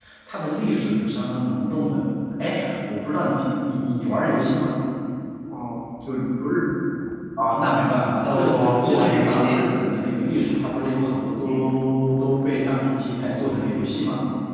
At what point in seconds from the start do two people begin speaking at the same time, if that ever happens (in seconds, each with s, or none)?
8.2 s